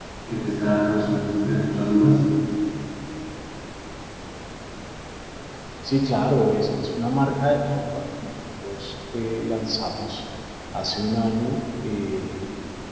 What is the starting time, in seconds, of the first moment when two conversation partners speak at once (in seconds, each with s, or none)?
none